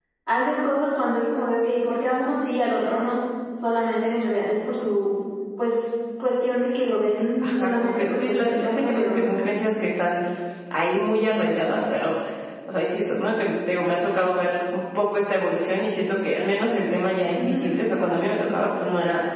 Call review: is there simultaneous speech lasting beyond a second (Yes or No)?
Yes